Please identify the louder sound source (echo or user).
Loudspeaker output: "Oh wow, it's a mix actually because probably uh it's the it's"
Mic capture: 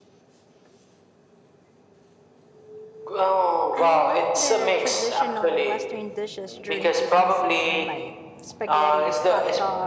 echo